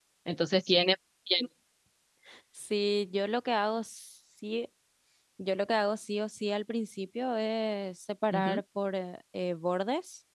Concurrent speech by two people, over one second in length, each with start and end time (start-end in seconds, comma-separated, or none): none